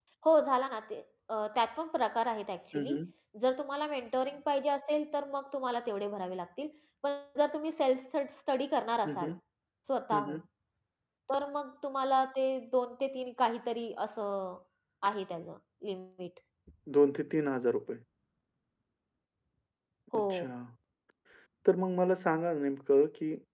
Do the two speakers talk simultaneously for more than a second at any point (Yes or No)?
No